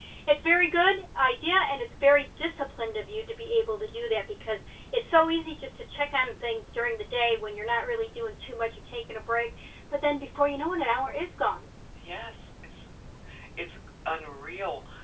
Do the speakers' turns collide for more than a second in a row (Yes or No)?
No